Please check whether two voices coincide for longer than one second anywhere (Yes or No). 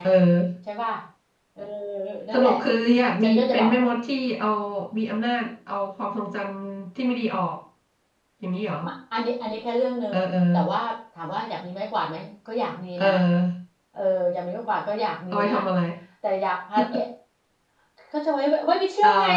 No